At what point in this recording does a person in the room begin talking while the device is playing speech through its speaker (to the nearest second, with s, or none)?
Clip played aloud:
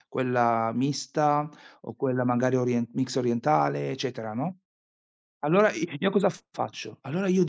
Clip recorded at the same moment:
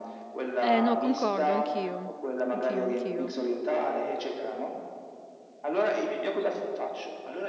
1 s